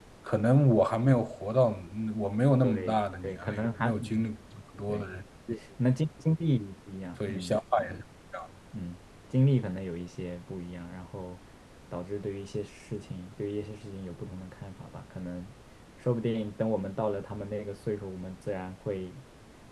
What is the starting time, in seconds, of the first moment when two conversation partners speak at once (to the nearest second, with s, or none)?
3 s